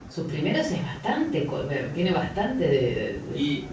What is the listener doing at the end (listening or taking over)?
taking over